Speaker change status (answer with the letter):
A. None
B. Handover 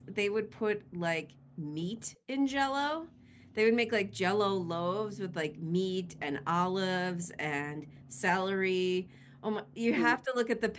A